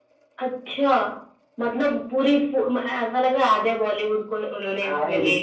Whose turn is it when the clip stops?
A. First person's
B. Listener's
B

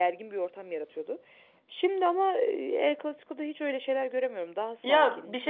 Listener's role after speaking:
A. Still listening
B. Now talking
B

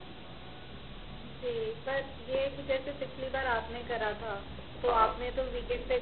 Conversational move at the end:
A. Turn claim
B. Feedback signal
B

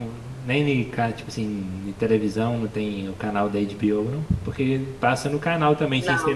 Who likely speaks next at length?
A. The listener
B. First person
B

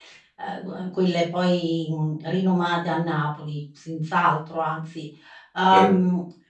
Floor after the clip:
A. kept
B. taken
A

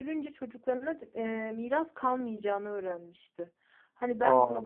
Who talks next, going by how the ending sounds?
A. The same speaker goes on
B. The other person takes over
A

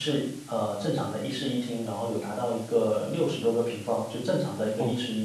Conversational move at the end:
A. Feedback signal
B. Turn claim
B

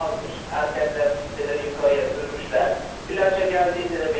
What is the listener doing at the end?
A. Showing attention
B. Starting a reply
A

